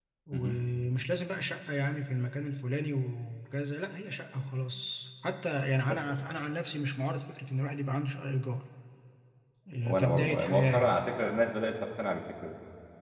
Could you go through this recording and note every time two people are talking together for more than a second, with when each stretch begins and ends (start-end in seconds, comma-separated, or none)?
9.8-11.0